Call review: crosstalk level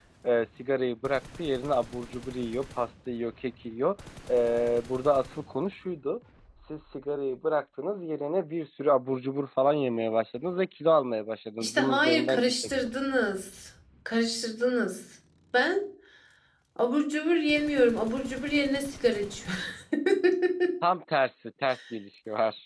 present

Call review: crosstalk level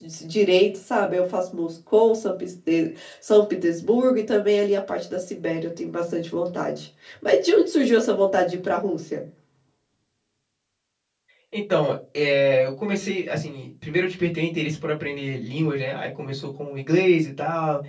none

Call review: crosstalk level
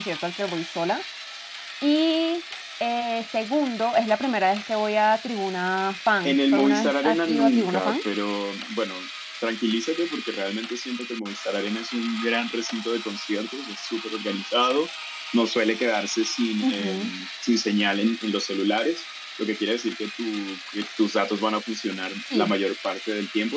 present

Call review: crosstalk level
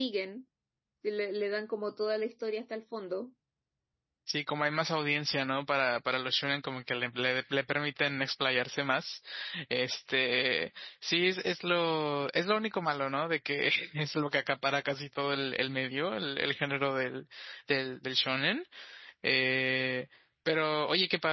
none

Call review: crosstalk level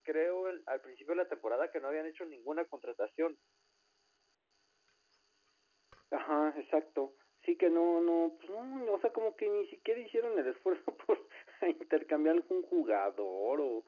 none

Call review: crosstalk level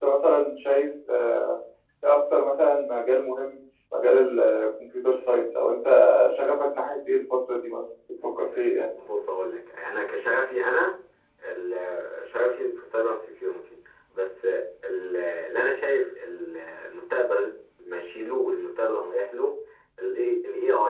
none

